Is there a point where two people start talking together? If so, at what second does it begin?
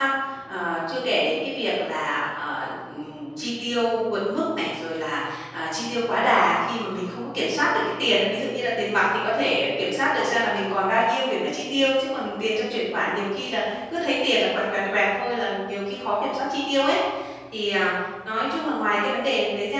none

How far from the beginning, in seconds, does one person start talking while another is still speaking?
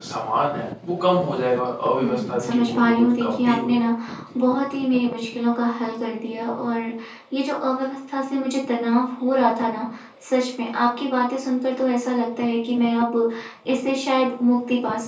2.0 s

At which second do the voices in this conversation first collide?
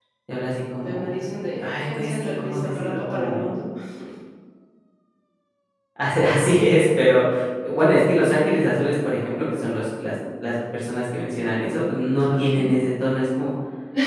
0.8 s

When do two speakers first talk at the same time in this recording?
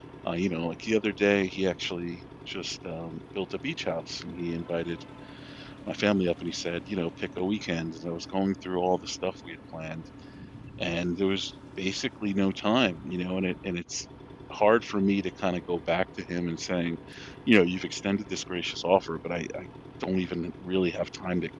none

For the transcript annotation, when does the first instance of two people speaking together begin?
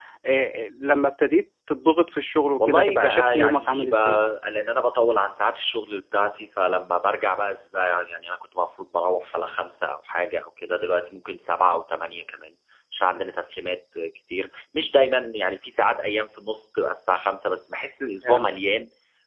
2.6 s

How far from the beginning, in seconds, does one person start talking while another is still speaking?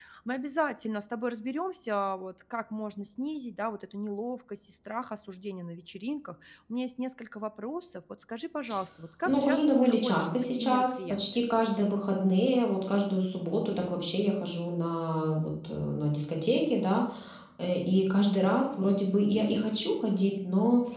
9.2 s

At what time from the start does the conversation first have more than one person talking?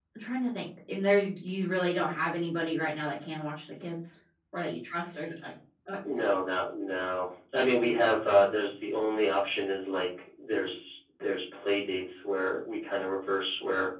none

